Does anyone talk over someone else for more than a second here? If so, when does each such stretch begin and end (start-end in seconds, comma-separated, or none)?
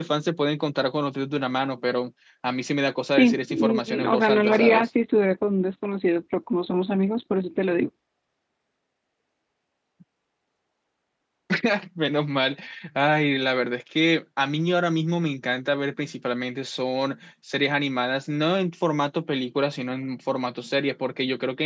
3.2-4.9